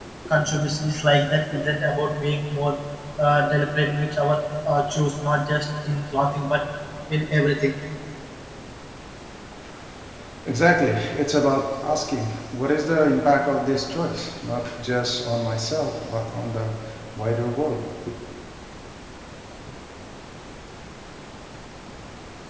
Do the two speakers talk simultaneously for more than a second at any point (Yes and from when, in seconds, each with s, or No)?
No